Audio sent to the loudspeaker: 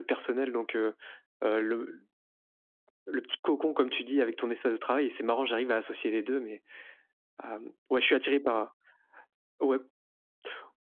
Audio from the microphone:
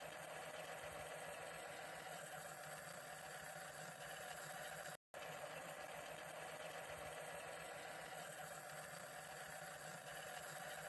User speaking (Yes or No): No